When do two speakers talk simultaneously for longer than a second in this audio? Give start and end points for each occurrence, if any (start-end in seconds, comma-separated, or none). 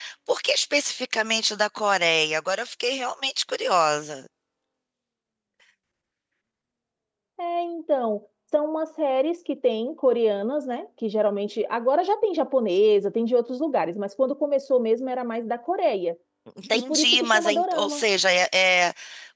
16.7-18.0